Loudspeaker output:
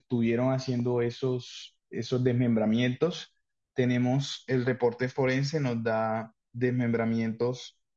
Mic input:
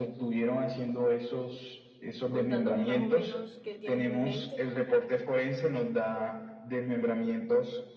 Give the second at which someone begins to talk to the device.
2.3 s

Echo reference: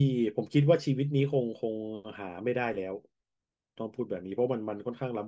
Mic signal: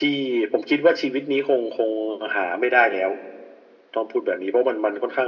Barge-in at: none

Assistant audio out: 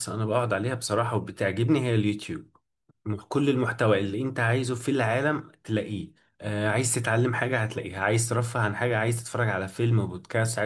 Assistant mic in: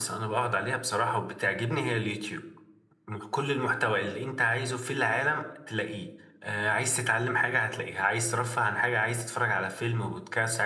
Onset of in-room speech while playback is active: none

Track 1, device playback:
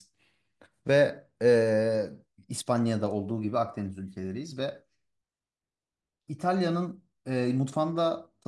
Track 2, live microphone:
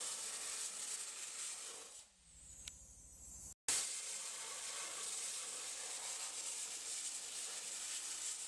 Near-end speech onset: none

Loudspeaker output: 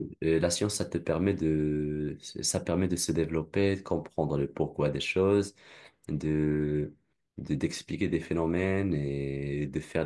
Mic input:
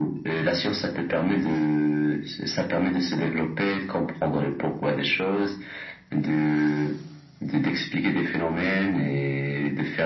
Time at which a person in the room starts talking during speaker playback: none

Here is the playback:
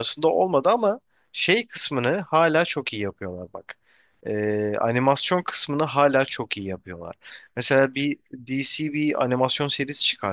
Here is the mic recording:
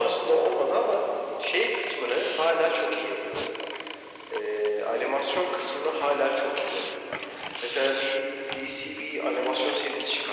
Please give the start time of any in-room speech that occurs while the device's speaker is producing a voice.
none

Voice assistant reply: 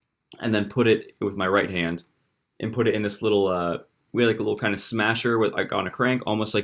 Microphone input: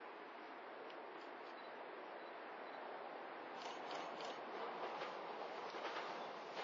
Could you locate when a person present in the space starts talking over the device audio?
none

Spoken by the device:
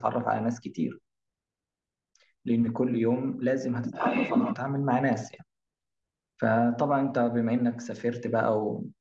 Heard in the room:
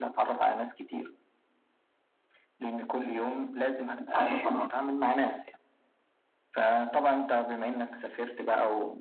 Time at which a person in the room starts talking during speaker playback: none

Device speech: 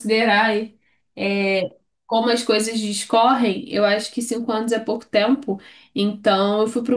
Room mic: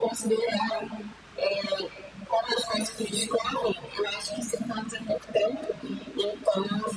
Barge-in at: none

